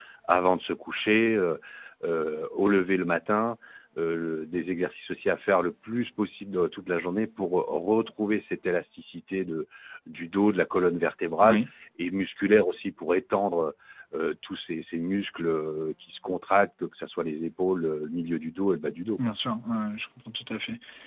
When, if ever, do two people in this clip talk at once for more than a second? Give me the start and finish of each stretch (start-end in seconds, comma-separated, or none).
none